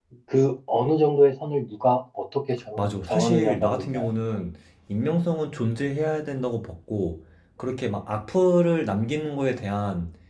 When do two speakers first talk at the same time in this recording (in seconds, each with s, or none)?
2.8 s